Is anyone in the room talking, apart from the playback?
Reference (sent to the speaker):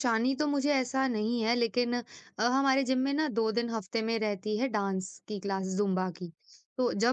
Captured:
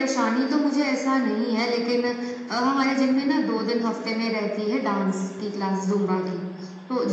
No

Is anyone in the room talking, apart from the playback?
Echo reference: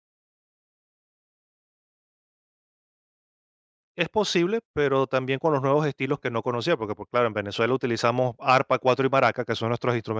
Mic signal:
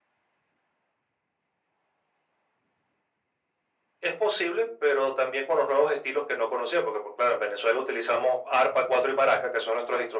No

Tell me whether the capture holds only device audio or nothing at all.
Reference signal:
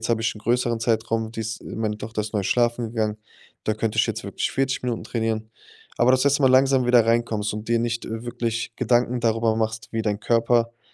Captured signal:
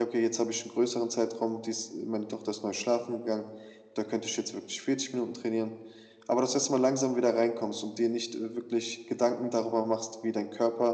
Yes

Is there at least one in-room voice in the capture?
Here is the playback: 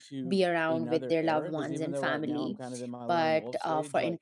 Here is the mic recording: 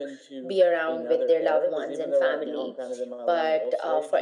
No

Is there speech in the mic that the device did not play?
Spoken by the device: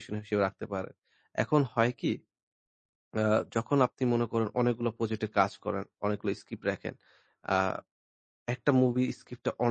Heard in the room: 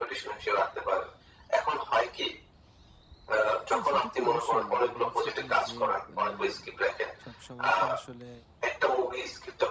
Yes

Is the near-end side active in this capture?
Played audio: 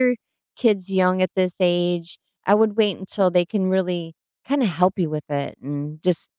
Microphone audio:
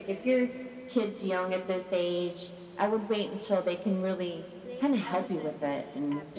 Yes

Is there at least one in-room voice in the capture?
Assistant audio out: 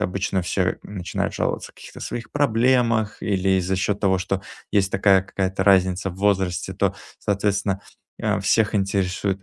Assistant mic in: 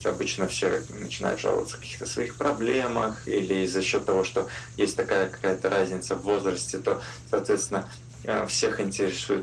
No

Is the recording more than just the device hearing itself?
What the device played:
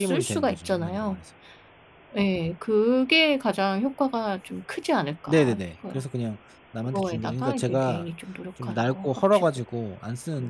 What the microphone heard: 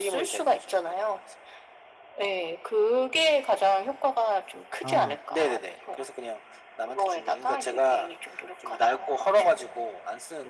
Yes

